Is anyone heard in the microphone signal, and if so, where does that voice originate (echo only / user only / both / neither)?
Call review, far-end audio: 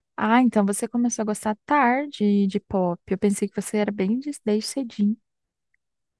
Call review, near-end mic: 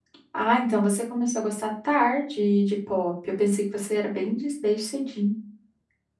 echo only